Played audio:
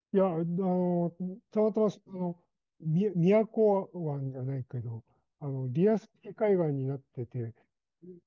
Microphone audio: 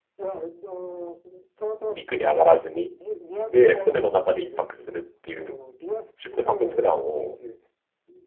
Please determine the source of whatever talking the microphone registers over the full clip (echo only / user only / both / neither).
both